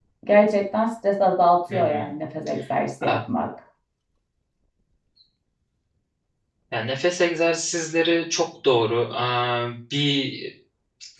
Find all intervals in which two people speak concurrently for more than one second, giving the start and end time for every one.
none

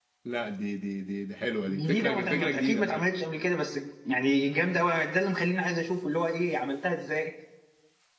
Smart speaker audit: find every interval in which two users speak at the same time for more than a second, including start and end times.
1.7-3.0

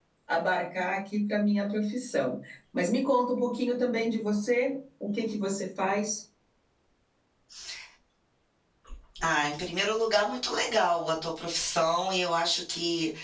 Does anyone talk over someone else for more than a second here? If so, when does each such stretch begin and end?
none

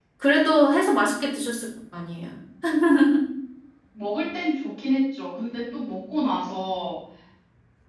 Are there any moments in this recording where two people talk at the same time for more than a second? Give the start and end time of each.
none

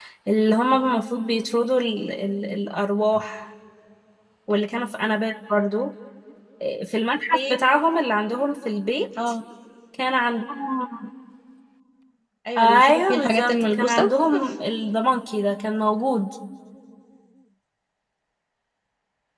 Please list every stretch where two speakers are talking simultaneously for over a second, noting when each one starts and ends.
12.6-14.1

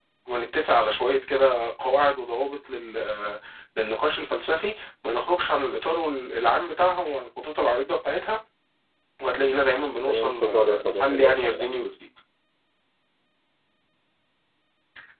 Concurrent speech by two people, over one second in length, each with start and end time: 10.1-11.7

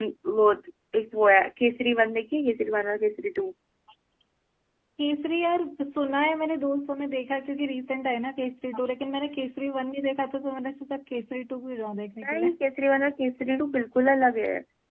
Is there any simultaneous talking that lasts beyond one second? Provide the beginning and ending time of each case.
none

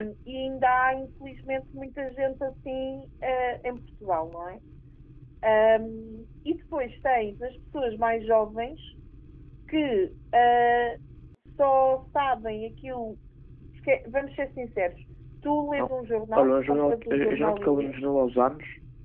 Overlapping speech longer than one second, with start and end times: 16.4-17.9

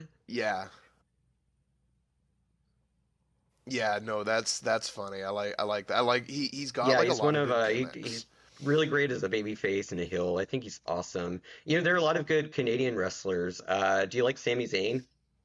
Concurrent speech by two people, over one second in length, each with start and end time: 6.8-8.2

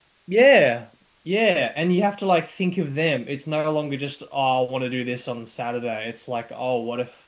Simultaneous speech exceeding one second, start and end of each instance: none

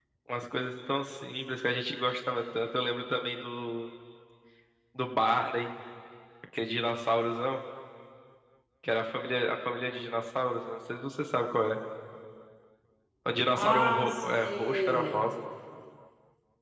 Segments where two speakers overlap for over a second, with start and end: 13.6-15.3

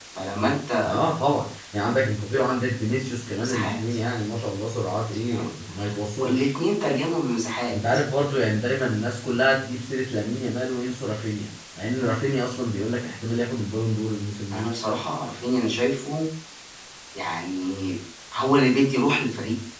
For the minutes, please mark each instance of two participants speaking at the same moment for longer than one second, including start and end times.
none

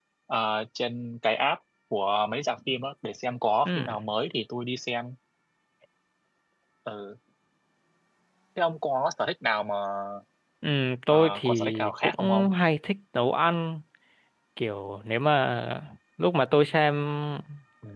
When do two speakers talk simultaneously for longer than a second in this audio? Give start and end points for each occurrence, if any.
11.1-12.5

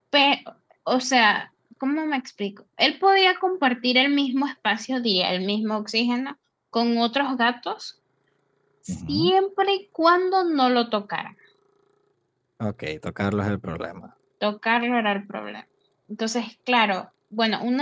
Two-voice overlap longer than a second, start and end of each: none

